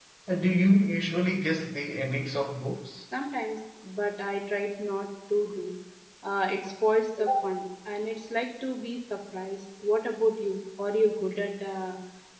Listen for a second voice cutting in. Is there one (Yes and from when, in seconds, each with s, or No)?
No